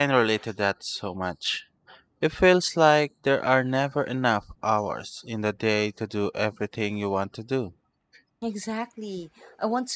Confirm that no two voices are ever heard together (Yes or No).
Yes